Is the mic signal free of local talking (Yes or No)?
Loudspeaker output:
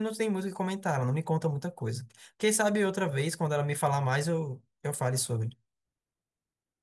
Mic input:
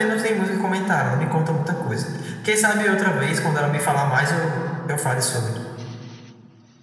Yes